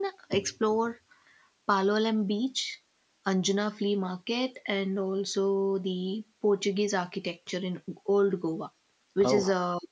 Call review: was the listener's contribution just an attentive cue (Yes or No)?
Yes